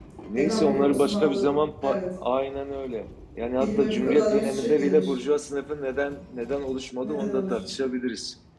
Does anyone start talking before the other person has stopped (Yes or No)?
Yes